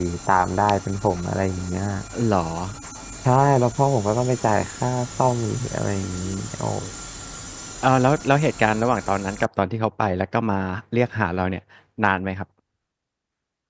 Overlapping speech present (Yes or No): No